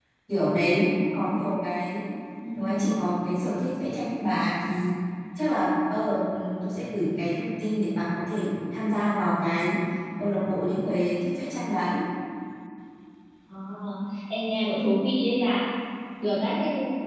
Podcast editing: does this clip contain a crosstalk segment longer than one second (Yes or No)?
No